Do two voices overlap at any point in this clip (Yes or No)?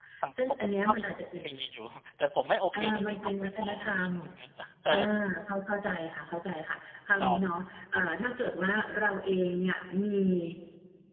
Yes